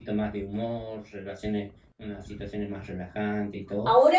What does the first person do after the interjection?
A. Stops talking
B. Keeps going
A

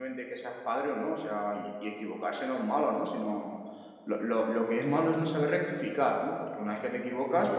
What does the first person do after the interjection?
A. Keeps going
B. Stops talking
A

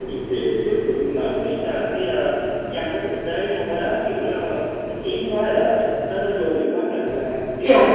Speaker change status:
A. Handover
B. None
A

